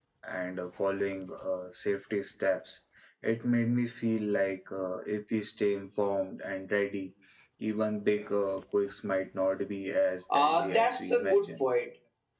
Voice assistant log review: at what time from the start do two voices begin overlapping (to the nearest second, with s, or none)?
10 s